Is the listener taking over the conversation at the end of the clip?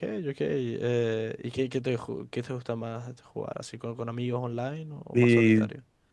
Yes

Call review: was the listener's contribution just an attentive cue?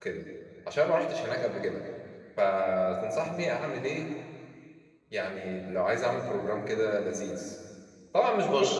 Yes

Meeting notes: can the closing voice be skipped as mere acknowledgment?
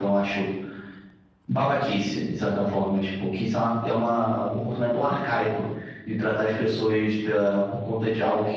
Yes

